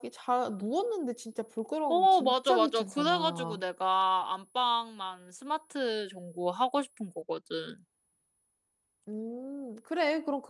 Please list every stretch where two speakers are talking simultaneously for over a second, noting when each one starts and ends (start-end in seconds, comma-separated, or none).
1.9-3.6